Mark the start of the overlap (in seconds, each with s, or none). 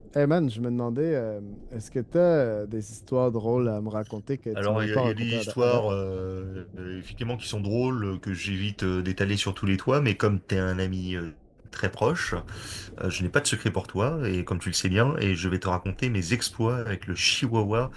4.5 s